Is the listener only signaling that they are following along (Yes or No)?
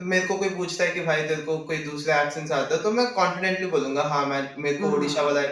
No